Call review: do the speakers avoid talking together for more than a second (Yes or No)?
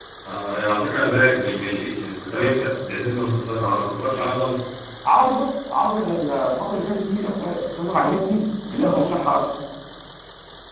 Yes